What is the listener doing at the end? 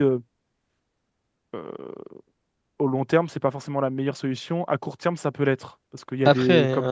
listening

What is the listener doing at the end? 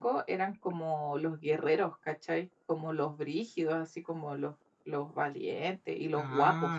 taking over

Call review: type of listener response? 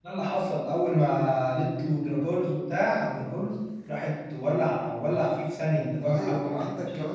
taking over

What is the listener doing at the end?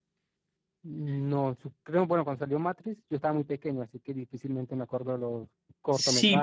taking over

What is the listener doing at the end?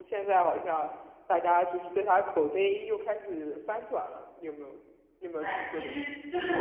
taking over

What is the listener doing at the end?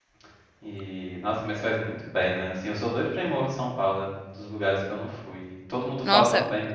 taking over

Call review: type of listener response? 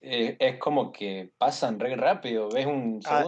taking over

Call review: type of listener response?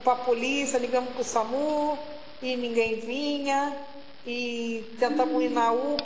listening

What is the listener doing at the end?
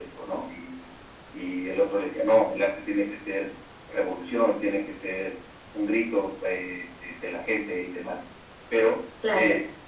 listening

